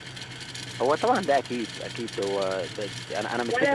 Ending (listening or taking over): taking over